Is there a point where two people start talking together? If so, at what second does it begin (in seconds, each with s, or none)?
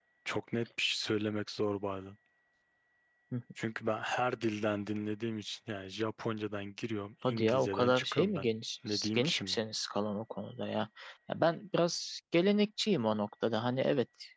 7.2 s